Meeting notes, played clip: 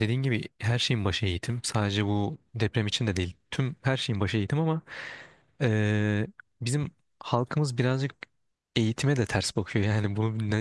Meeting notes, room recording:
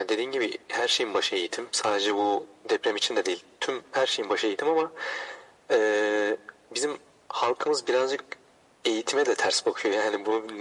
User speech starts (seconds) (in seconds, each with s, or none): none